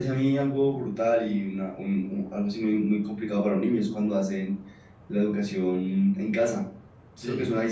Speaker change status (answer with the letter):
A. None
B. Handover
A